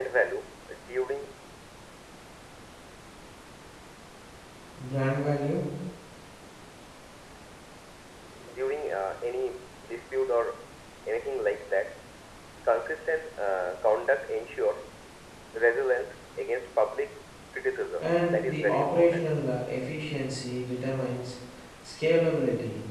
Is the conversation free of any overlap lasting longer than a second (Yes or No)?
No